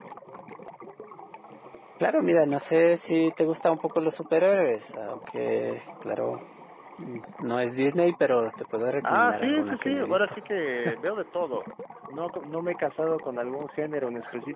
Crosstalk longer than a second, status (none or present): present